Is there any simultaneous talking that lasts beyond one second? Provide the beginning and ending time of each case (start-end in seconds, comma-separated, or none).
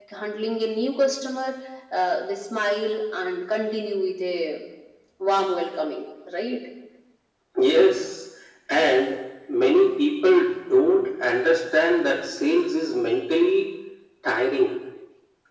none